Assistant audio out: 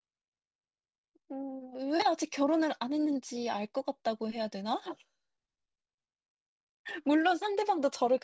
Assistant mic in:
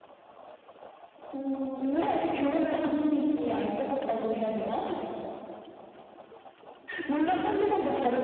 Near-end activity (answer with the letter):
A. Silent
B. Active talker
A